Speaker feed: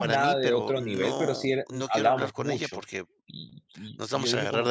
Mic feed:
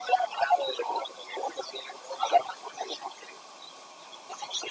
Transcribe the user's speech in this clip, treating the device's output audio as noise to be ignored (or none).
none